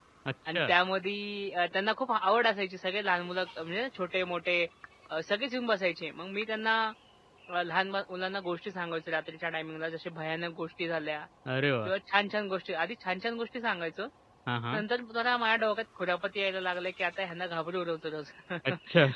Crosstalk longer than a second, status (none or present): none